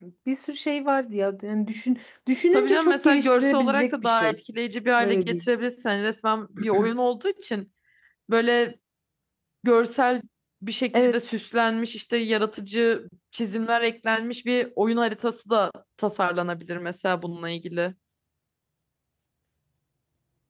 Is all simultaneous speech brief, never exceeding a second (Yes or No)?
No